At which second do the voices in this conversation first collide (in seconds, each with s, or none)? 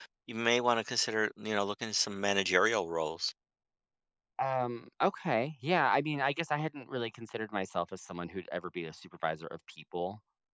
none